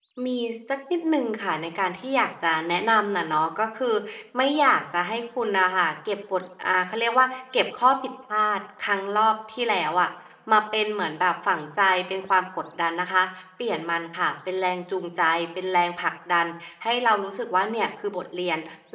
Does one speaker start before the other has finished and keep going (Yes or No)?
No